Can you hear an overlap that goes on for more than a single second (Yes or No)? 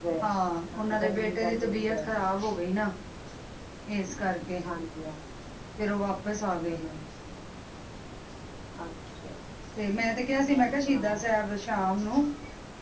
Yes